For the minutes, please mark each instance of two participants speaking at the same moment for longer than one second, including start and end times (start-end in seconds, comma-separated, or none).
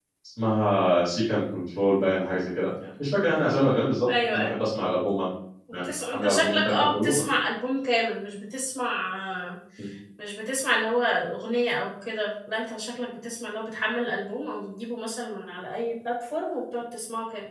5.8-7.2